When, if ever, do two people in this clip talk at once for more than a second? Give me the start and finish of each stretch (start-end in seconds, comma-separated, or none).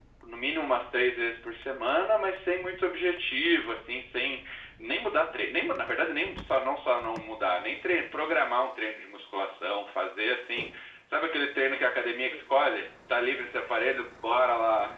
none